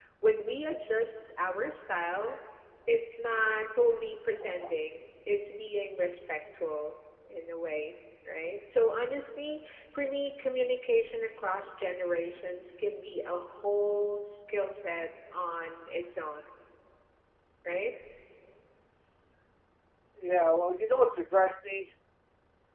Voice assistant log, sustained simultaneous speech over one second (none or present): none